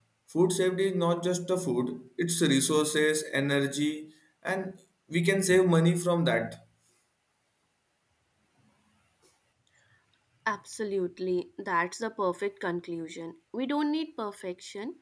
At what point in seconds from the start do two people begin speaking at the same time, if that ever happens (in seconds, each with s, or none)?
none